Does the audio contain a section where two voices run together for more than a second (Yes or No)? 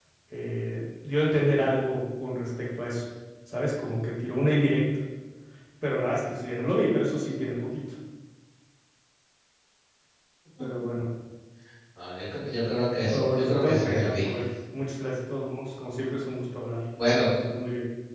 Yes